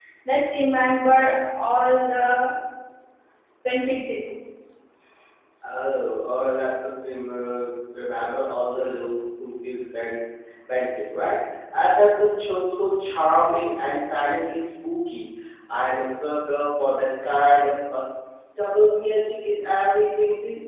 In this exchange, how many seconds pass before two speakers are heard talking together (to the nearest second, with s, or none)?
none